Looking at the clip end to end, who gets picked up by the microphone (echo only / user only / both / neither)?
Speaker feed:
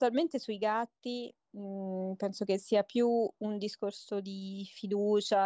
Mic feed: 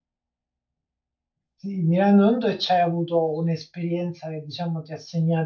user only